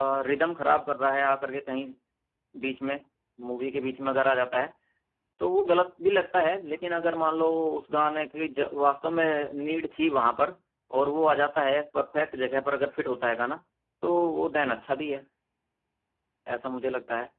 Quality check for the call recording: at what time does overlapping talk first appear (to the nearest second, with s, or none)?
none